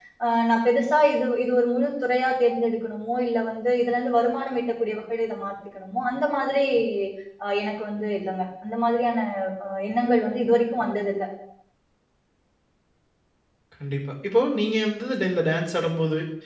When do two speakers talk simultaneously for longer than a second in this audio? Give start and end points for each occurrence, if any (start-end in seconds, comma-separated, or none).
none